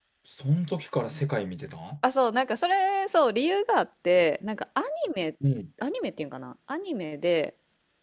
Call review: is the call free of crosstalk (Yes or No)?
Yes